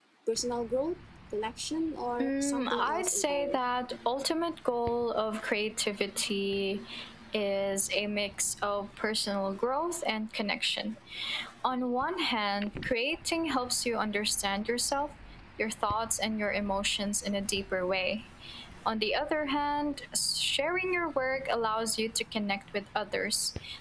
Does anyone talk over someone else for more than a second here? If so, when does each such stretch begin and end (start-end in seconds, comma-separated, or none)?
2.2-3.6